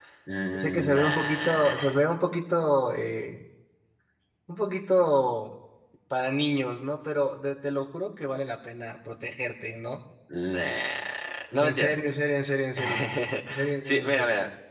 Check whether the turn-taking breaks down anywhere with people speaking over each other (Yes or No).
Yes